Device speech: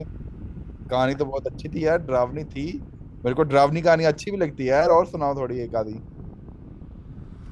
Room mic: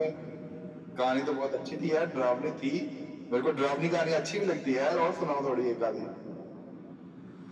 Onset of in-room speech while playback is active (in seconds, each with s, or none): none